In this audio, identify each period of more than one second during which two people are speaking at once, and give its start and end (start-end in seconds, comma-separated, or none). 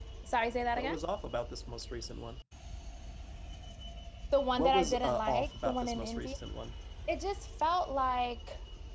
4.6-6.3